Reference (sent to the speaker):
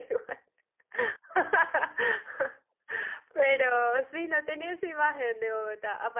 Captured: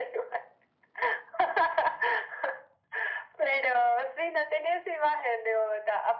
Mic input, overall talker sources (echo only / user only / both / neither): echo only